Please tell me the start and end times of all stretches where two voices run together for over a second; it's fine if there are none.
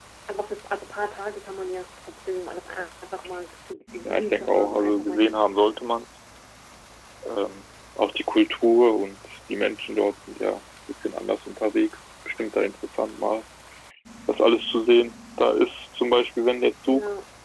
4.0-5.3

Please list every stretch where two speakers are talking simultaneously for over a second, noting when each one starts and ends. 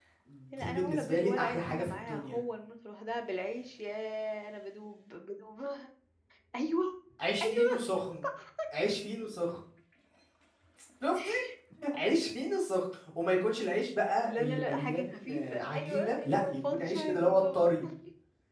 0.5-2.4, 14.2-17.7

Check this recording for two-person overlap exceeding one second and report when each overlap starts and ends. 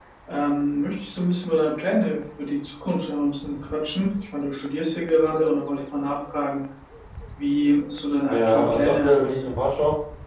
8.2-9.5

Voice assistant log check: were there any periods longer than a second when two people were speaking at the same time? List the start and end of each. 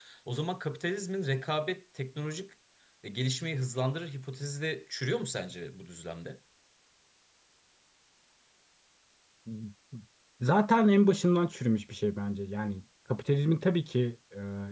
none

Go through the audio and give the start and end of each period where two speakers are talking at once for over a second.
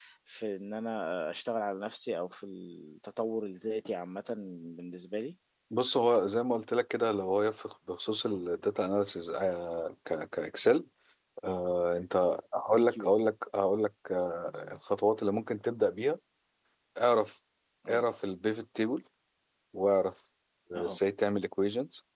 none

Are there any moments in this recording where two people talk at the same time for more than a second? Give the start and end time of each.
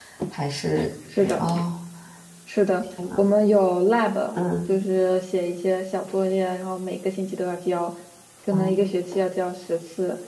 none

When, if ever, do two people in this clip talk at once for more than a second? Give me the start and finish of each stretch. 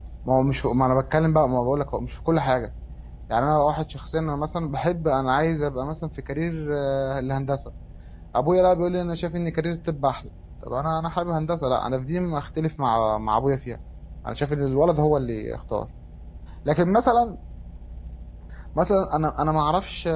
none

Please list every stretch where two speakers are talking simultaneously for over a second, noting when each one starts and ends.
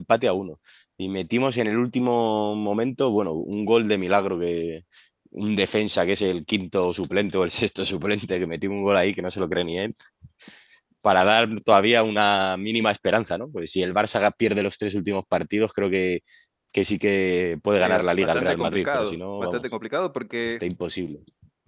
17.7-19.6

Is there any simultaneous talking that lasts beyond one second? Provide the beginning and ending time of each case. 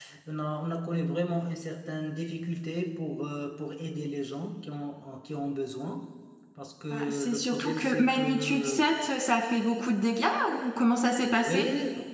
6.9-8.8

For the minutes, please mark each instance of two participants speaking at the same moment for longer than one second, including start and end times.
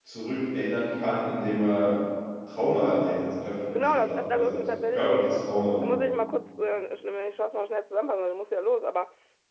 3.8-5.3

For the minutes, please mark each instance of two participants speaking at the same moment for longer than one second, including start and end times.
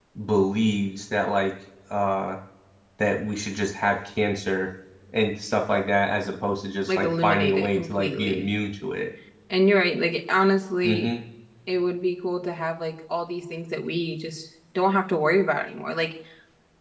6.9-8.4

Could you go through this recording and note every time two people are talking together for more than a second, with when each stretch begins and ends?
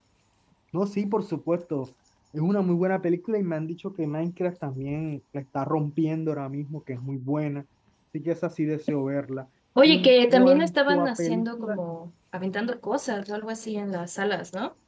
9.8-11.8

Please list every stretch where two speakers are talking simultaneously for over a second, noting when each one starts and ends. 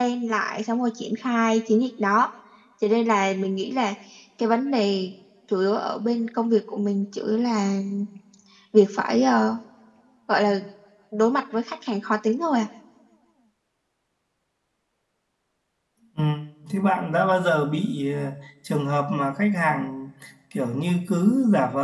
none

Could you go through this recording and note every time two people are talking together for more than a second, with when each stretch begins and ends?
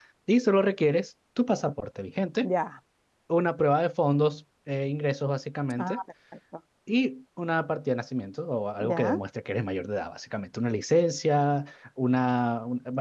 none

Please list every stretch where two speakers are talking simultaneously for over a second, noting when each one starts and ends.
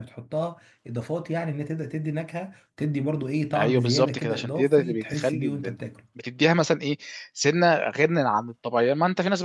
3.6-5.8

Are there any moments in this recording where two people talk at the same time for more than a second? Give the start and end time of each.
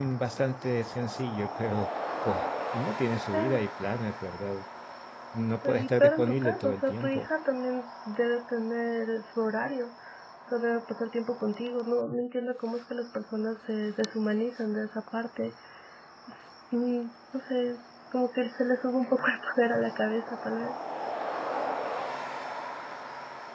5.6-7.3

